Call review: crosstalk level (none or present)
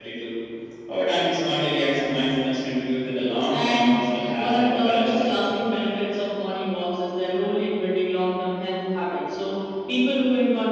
present